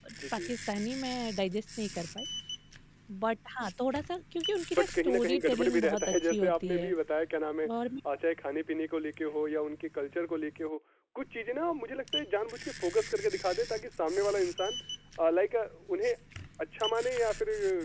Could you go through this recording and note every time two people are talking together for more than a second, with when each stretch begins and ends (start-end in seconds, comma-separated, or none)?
4.8-6.9